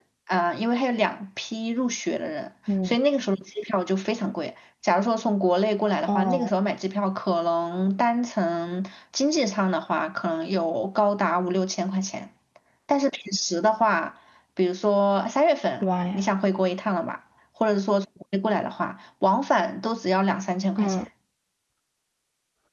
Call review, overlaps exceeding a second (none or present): none